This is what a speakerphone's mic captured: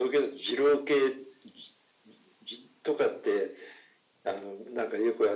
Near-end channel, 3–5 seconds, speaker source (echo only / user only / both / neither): echo only